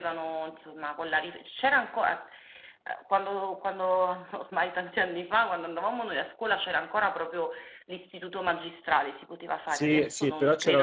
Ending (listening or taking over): taking over